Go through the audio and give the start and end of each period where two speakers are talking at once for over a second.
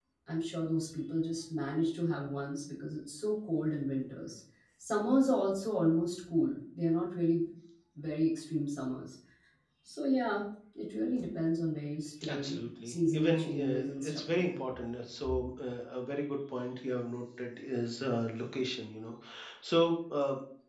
12.2-14.6

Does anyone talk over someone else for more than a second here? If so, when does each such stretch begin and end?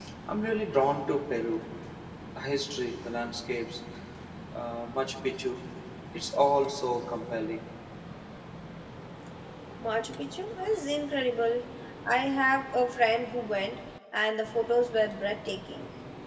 none

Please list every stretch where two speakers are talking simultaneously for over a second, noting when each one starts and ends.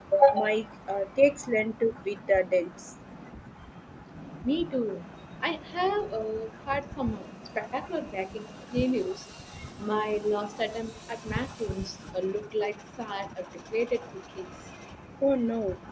none

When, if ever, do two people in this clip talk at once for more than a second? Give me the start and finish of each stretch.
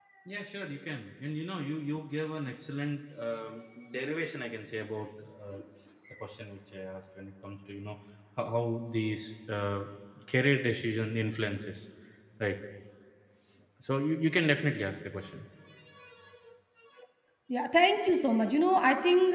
none

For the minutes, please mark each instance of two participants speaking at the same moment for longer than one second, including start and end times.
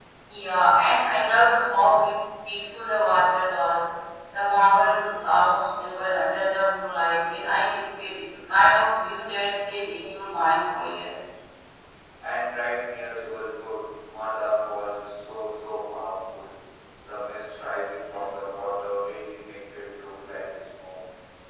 none

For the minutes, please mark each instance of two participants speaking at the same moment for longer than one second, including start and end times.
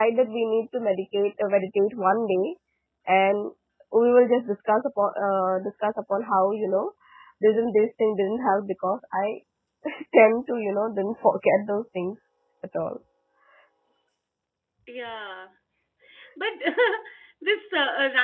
none

